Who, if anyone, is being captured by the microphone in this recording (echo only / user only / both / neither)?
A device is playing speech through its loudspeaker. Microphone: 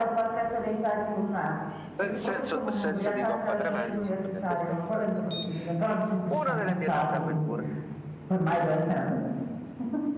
both